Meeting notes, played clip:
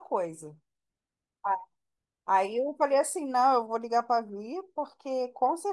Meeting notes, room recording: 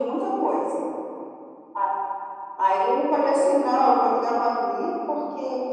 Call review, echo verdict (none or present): present